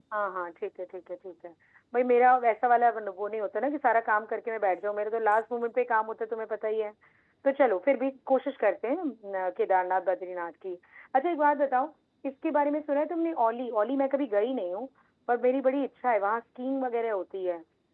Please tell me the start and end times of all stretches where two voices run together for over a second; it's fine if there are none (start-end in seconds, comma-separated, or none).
none